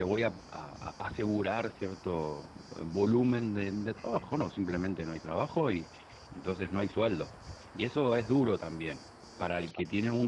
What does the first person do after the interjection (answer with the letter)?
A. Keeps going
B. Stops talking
A